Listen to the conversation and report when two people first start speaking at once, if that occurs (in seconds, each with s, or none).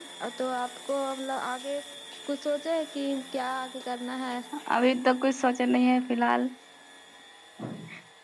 none